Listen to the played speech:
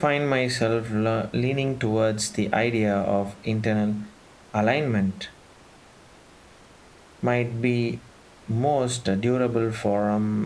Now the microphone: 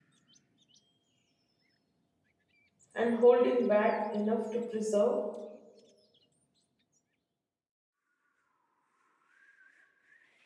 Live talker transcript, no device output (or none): and holding back enough to preserve